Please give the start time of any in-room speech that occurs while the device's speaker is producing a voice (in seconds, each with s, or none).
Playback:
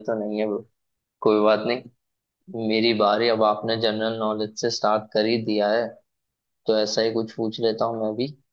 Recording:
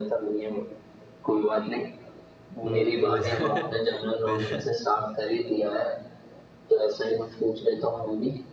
2.6 s